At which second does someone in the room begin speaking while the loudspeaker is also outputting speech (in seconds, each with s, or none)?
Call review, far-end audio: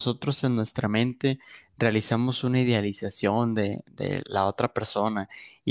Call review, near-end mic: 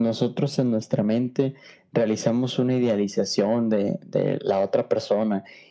none